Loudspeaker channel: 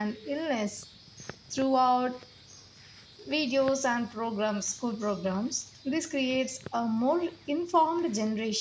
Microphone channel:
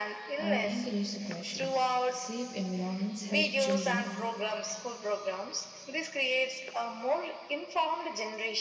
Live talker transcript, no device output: and encourage the questions. Safe environments help children

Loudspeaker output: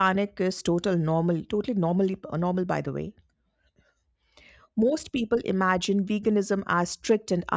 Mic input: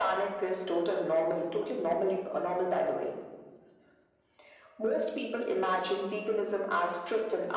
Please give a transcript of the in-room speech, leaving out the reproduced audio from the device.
none

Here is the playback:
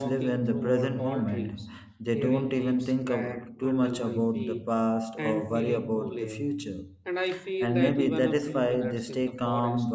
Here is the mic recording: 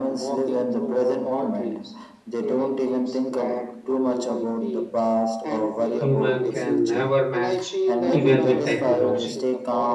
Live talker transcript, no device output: human can never match, even with technology.

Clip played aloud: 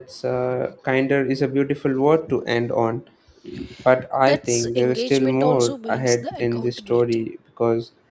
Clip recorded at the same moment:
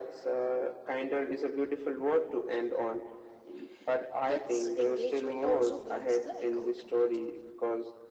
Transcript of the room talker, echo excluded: none

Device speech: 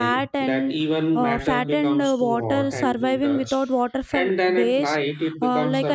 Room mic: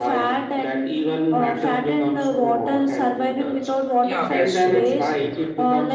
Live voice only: Yeah, that's so true.

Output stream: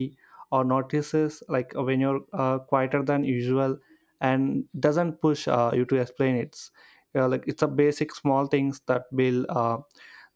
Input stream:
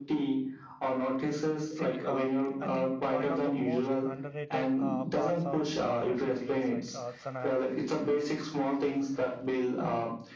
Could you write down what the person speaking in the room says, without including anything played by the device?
see, um, I think one of the most underrated uh, parts of partnership is like uh, it's an ad-

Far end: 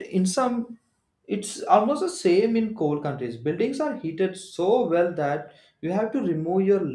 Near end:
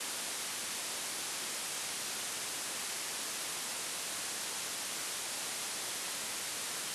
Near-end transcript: none

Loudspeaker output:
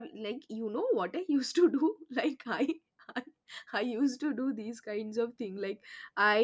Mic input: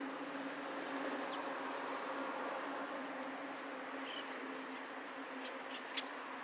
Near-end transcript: none

